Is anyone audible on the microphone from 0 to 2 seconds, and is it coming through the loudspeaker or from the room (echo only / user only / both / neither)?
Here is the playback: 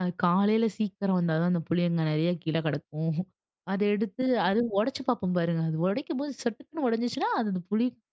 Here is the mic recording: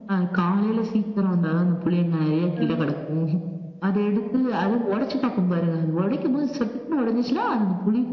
echo only